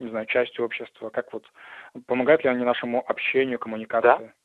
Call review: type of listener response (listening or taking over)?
taking over